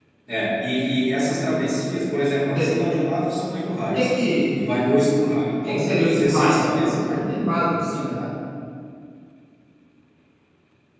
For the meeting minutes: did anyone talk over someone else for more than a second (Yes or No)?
Yes